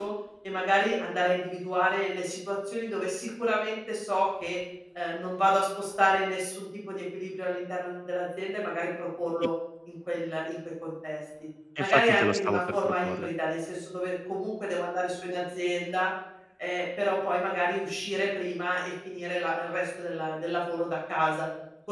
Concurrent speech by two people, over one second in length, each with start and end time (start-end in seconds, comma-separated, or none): 11.8-13.3